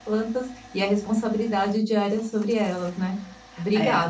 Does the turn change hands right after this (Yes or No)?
Yes